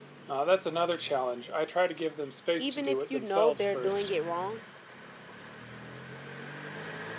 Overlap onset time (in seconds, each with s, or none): 2.6 s